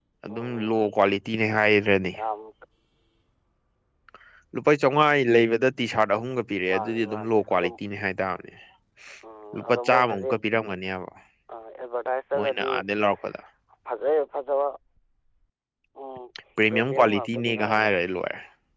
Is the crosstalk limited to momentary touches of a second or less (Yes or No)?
No